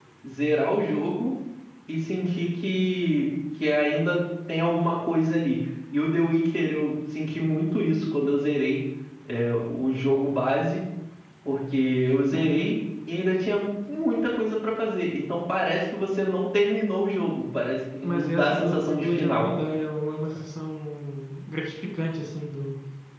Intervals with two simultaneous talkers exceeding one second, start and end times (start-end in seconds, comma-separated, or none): 18.0-19.5